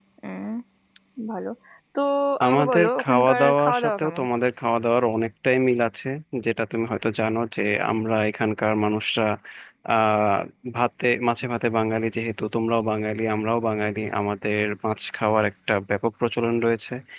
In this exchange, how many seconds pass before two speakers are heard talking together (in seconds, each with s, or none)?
2.5 s